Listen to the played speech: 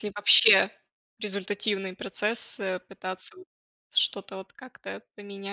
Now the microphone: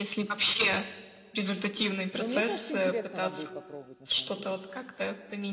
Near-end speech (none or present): present